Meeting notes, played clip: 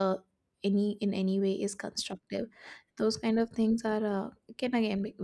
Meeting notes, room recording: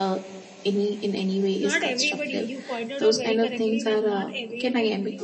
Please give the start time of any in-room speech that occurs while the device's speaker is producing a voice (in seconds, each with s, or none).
1.7 s